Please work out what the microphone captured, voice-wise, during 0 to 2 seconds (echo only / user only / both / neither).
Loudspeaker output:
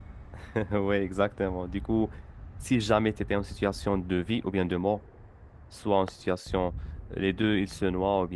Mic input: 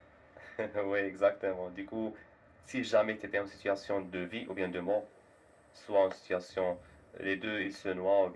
echo only